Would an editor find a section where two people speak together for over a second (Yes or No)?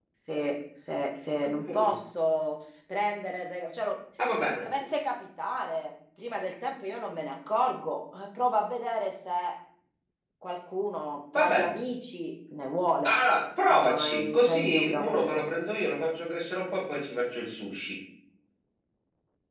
Yes